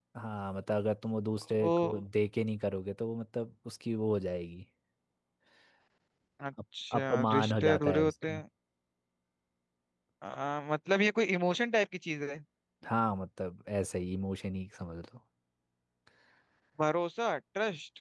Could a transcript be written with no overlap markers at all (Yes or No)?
No